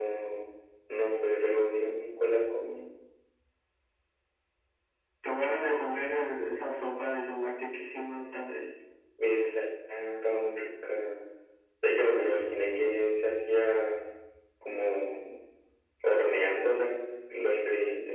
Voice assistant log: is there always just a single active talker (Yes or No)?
Yes